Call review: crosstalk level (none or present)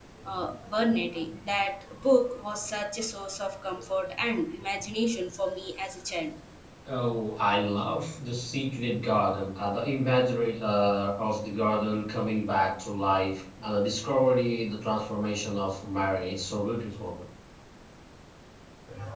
none